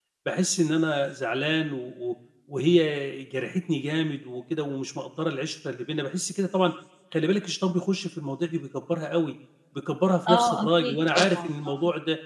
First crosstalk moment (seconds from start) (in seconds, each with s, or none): 10.3 s